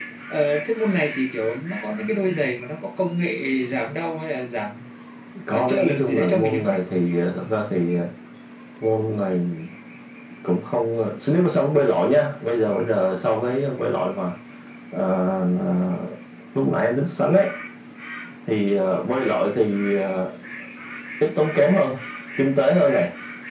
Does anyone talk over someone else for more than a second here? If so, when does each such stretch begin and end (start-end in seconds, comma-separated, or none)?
5.5-6.8